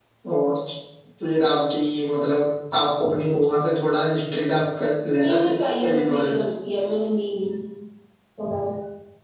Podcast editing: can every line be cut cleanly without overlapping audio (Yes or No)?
No